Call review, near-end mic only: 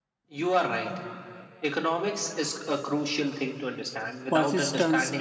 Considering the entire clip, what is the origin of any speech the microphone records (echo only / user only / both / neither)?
both